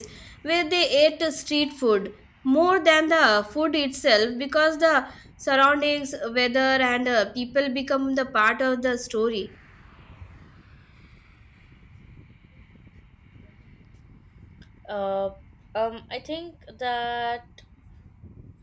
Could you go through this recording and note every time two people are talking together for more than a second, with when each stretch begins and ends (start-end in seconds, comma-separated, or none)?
none